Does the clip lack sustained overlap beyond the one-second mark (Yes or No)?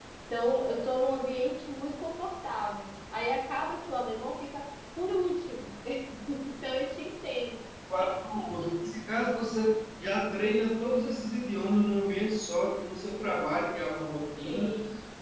Yes